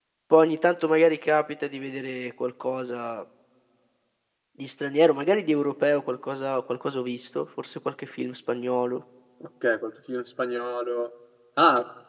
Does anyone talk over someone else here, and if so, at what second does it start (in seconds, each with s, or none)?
none